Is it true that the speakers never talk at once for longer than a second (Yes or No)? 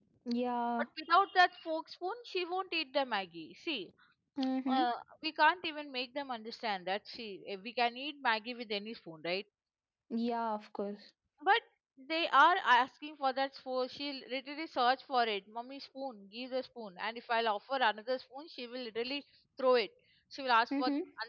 Yes